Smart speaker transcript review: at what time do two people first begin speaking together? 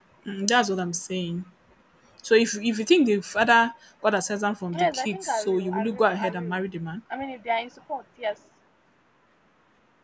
4.7 s

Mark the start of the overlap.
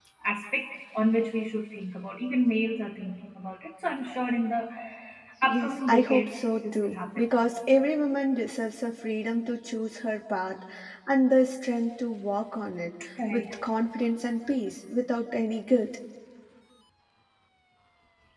5.4 s

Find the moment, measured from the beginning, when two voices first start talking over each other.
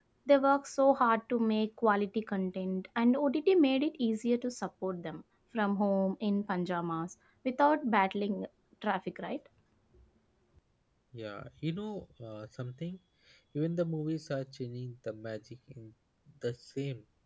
none

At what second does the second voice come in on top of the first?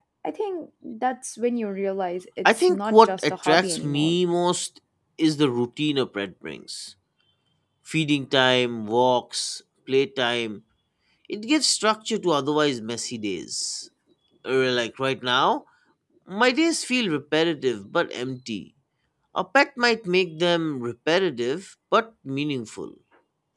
2.4 s

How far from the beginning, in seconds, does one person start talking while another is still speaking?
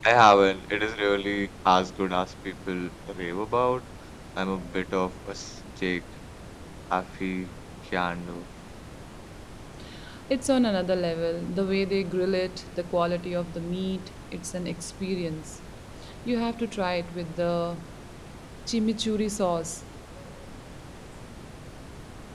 none

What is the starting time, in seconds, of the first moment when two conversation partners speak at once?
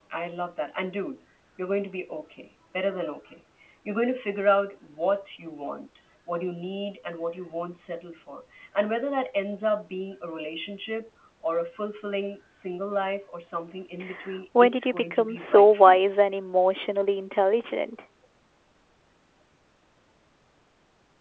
14.6 s

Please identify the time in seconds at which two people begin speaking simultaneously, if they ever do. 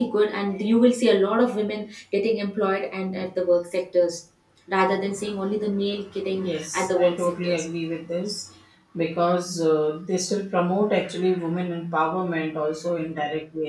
6.3 s

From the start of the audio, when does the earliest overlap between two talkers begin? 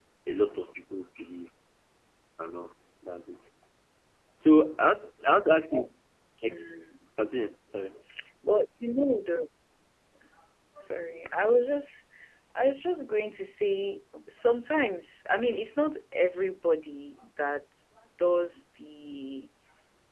none

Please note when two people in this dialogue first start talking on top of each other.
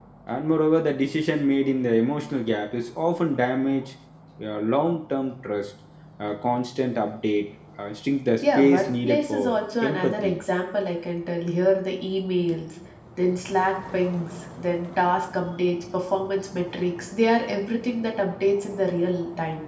8.4 s

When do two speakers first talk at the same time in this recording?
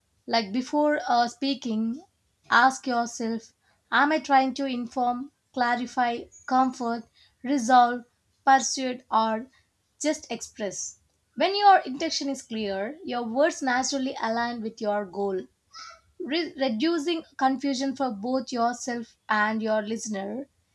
none

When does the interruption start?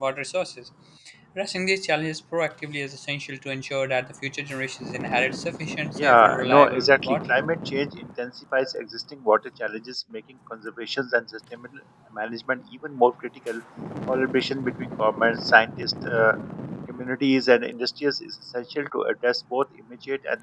6.0 s

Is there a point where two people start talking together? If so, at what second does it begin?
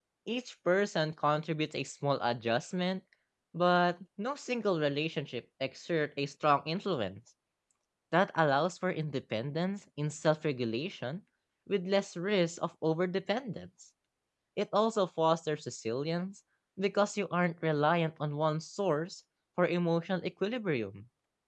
none

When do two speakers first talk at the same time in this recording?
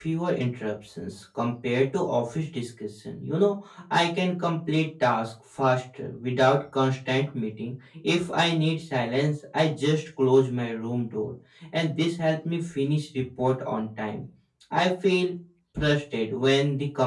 none

